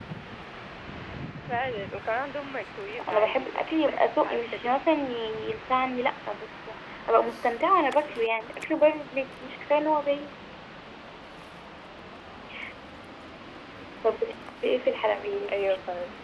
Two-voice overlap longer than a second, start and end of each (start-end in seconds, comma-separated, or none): 3.0-4.6